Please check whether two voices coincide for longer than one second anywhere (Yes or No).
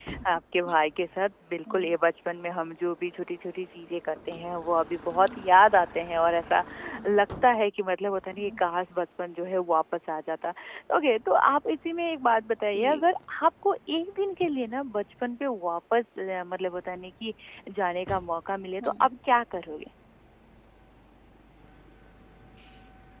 No